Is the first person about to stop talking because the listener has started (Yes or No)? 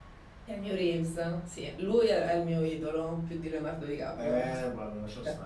Yes